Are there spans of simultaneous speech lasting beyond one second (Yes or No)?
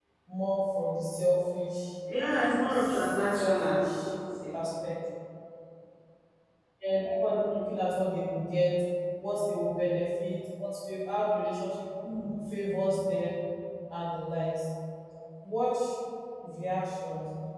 Yes